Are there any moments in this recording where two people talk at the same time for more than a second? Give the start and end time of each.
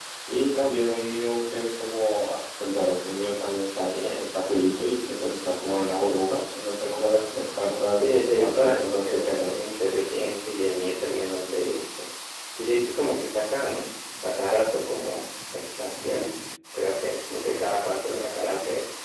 7.9-9.7

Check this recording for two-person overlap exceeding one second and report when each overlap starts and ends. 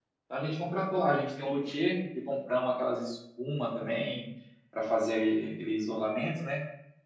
none

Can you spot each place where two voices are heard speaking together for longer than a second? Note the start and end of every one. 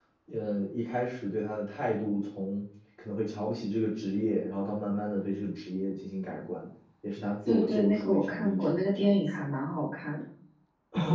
7.5-9.2

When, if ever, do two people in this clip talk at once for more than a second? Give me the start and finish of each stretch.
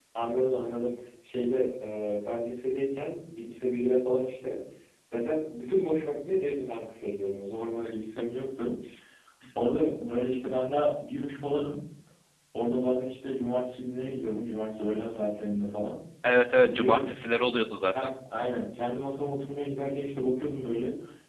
none

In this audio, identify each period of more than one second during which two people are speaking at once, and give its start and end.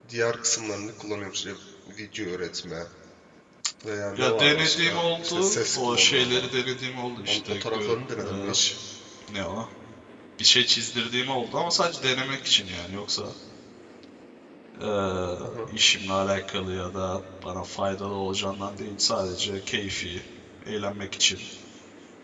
4.2-6.5, 7.3-8.6

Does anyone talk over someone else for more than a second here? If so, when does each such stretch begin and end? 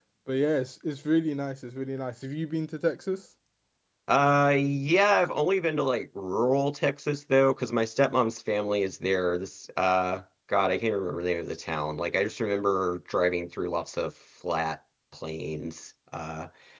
none

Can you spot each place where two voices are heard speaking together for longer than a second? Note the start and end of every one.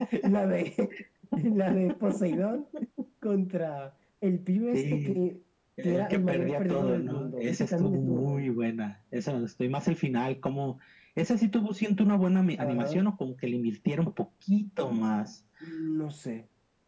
5.8-8.5

